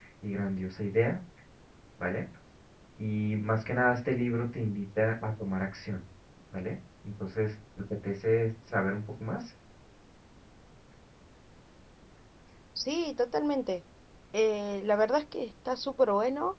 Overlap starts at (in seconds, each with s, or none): none